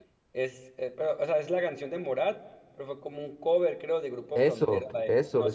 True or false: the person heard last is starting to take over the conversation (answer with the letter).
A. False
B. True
B